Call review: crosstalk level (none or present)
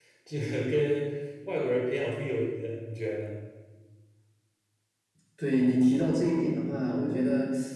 none